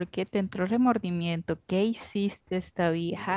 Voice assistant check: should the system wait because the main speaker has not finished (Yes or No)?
No